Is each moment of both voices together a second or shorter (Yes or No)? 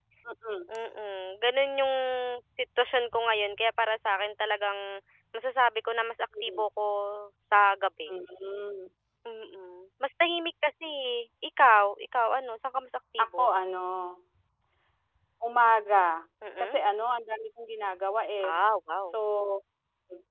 Yes